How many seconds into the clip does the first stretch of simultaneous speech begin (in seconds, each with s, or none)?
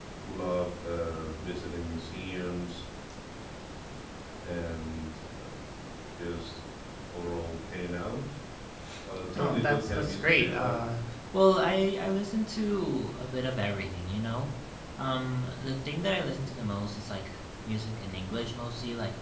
9.4 s